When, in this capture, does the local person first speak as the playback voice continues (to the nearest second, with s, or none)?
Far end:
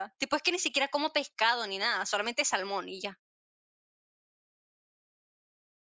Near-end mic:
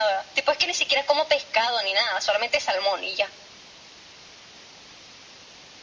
none